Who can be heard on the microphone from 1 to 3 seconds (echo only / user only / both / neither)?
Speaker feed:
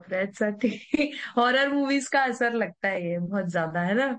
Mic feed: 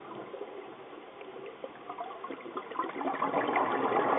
neither